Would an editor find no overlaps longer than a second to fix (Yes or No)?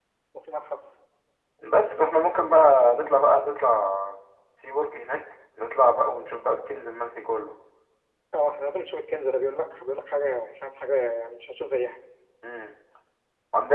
Yes